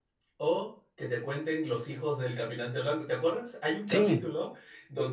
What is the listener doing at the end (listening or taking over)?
listening